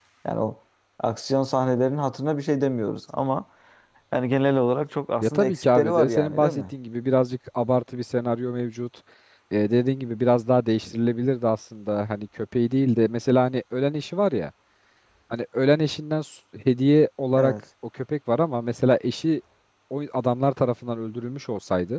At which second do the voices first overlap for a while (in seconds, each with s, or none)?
5.2 s